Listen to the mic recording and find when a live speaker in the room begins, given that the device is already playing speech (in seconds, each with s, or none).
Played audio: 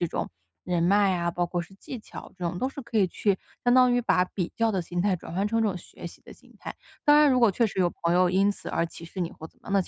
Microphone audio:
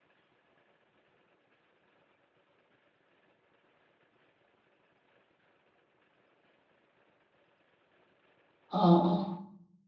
8.7 s